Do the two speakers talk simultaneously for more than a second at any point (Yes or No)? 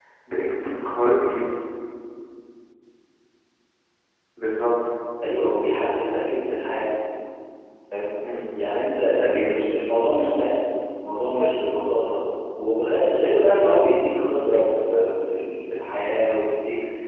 No